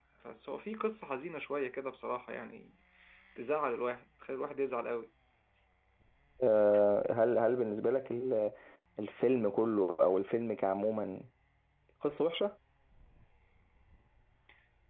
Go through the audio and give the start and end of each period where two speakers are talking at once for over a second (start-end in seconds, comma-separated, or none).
none